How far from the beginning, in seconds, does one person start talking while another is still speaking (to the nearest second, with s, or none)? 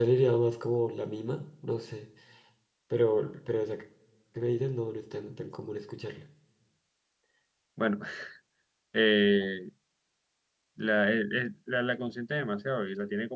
none